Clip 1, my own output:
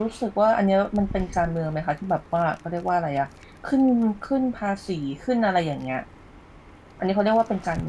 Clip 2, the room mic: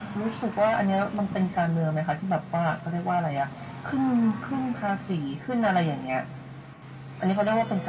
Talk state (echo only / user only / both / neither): echo only